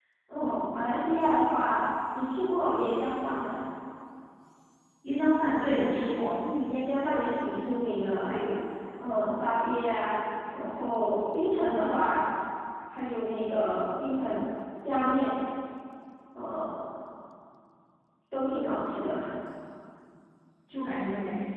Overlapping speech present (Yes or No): No